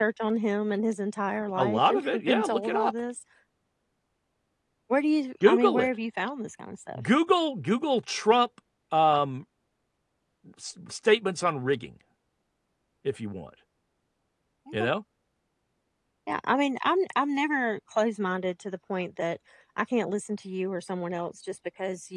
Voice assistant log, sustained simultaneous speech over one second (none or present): present